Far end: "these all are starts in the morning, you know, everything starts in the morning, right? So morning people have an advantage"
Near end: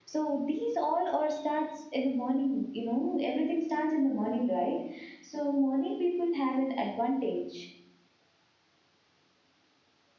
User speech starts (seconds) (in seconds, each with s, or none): none